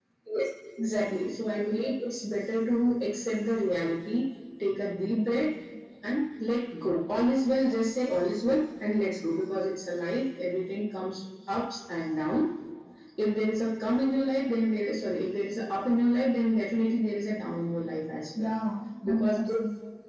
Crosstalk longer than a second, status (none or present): none